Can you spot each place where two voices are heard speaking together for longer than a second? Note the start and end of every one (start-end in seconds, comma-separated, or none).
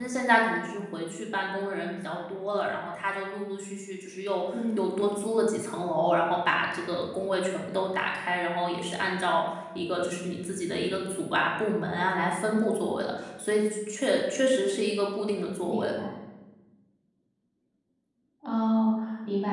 none